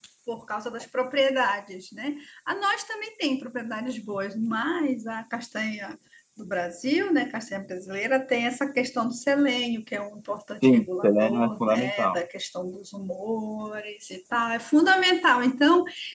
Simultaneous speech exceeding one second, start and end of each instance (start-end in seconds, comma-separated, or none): 10.6-12.2